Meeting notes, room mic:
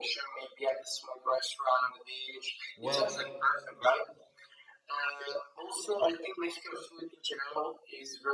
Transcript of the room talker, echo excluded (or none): Well,